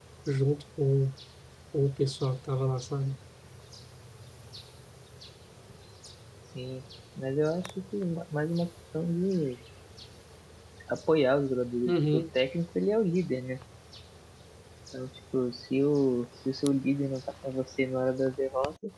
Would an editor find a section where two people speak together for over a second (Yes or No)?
No